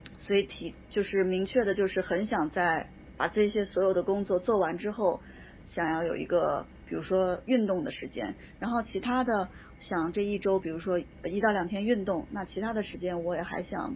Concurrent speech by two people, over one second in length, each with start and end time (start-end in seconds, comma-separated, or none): none